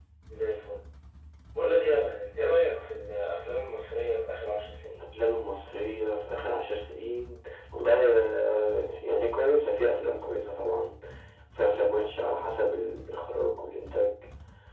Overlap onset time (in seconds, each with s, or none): none